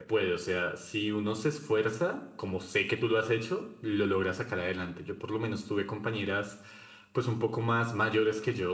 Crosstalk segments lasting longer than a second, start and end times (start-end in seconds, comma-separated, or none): none